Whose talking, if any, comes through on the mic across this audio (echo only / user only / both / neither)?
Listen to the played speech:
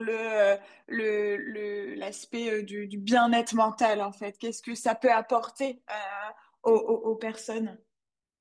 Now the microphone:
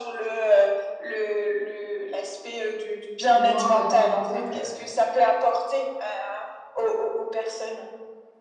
both